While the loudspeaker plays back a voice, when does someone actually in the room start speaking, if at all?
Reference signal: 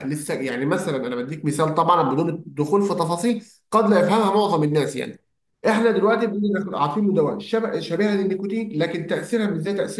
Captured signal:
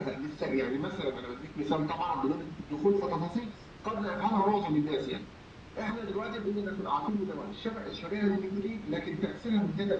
none

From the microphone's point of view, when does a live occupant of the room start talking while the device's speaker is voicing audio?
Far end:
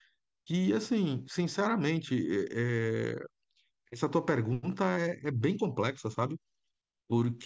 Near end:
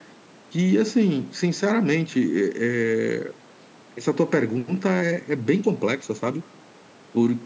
none

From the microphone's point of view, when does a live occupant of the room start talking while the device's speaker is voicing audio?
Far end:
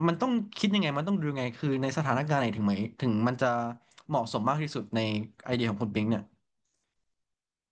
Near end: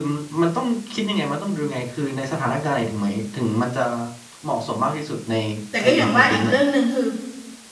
6 s

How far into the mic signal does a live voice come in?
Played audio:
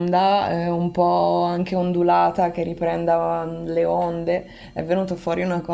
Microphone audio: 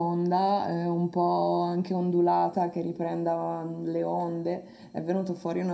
none

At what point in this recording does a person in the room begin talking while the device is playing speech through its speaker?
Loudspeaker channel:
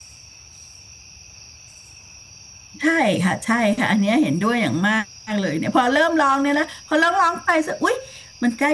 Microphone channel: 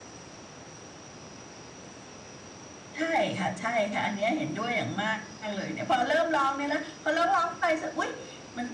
none

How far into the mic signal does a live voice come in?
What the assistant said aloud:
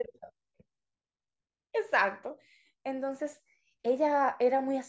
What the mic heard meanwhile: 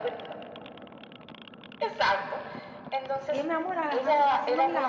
3 s

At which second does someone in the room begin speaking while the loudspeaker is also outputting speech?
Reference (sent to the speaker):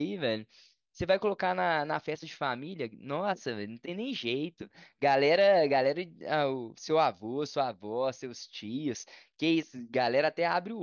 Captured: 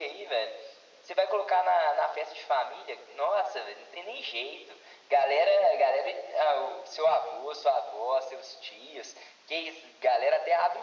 none

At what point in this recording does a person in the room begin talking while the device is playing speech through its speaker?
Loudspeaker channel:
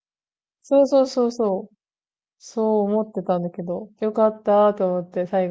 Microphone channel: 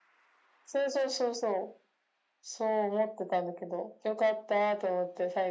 none

